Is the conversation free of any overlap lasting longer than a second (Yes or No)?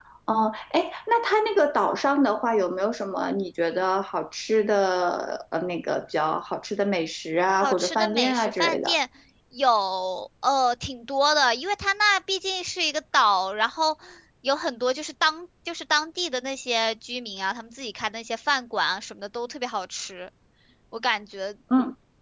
No